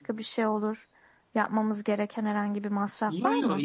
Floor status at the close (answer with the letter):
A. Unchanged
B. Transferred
B